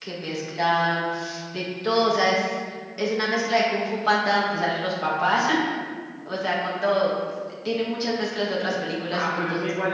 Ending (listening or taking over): taking over